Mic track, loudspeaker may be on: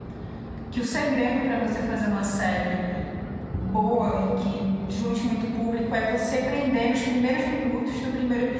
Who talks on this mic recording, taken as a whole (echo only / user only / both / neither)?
user only